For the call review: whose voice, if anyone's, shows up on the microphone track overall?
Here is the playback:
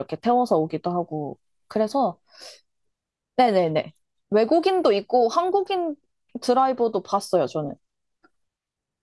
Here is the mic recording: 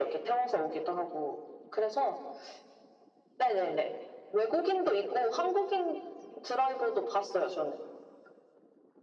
echo only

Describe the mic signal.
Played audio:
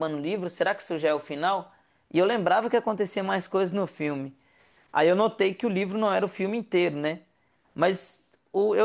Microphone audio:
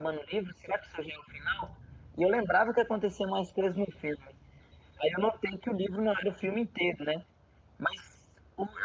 echo only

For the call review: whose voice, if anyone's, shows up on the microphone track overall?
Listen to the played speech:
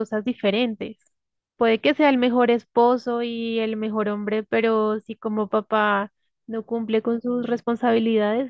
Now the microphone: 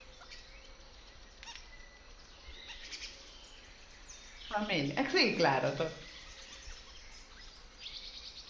user only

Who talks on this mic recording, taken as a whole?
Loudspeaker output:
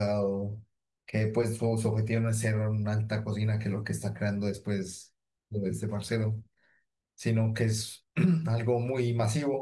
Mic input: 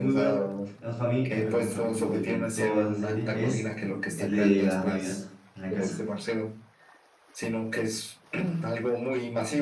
both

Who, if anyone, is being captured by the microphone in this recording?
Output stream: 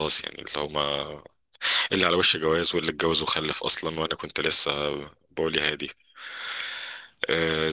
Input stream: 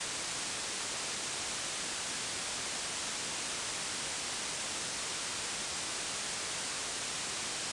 neither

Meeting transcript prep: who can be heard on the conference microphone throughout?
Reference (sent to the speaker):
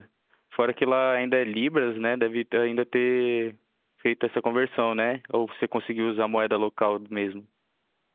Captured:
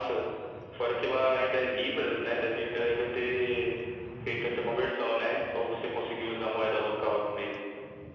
echo only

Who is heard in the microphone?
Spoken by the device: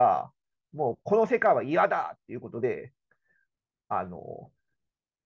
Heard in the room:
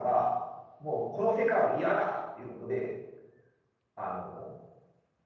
echo only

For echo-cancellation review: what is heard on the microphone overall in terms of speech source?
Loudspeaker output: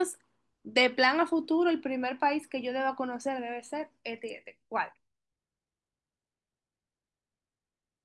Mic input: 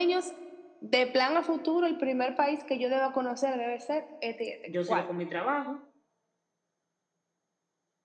both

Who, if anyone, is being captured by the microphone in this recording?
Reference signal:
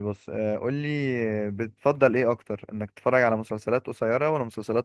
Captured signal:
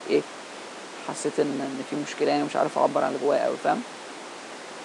user only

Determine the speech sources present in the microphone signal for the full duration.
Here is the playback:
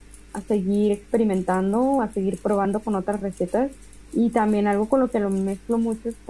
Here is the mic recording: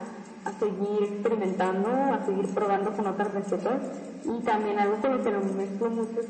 echo only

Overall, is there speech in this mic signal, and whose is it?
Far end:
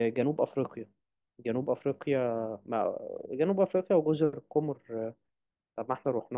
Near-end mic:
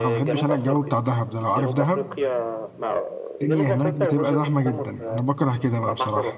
both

